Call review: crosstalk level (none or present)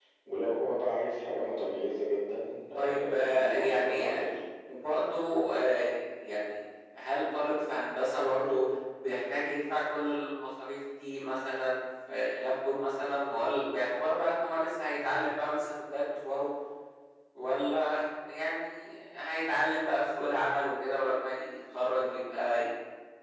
present